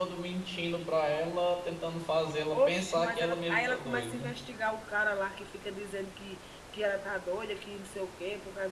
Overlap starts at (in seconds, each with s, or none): 2.5 s